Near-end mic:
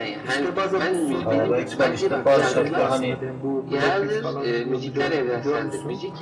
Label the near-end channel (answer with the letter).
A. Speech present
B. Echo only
A